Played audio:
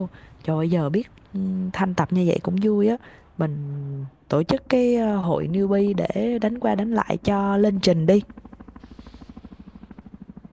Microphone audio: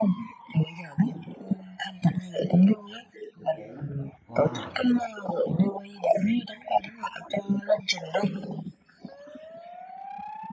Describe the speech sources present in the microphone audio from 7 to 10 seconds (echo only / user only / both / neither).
echo only